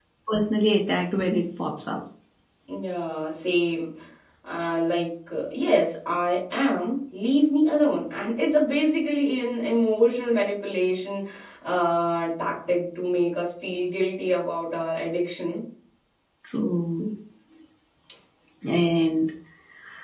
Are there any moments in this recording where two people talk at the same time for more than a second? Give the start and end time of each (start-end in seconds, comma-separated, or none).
none